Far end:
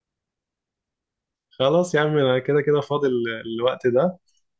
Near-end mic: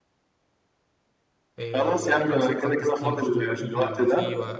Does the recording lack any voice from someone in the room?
No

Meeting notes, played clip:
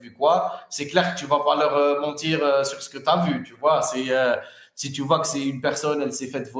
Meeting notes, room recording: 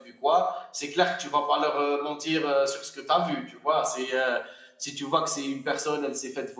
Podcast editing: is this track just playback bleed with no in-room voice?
Yes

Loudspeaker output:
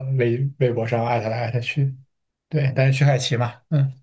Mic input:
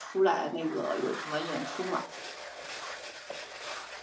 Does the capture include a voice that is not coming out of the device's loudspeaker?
Yes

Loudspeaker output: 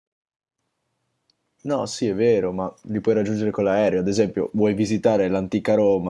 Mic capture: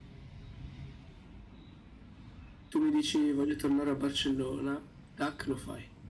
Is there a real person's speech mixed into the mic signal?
Yes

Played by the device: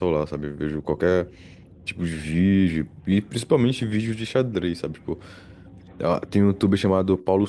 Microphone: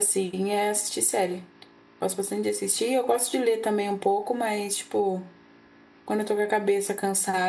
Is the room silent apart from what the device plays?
No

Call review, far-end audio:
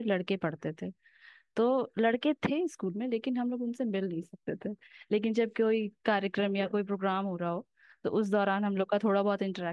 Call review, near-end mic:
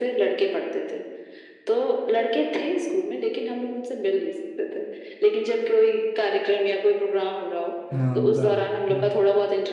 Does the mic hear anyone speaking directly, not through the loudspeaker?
Yes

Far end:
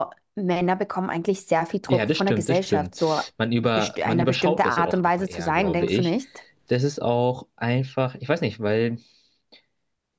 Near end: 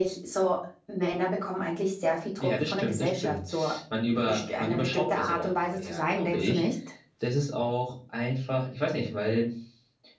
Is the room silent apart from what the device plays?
Yes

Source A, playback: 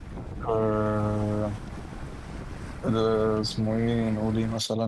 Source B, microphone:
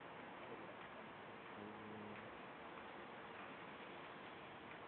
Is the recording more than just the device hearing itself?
No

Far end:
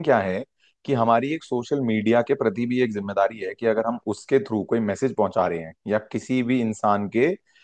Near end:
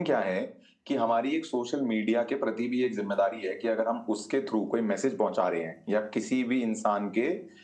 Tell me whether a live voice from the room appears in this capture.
No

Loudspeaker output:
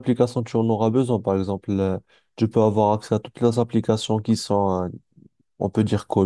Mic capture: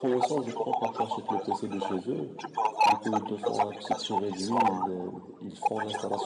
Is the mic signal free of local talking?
No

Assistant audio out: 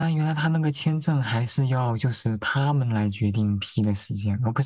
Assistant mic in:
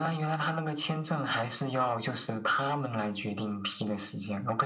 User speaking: No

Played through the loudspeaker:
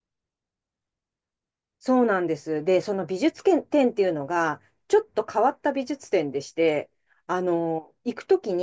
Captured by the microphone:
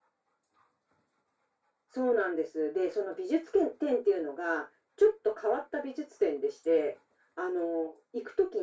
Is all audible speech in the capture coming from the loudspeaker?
Yes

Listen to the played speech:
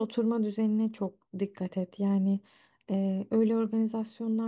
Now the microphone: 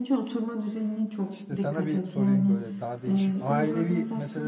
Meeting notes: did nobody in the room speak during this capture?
No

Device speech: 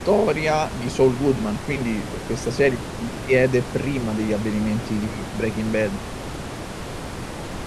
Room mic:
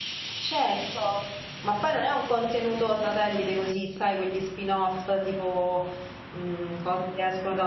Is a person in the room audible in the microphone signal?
Yes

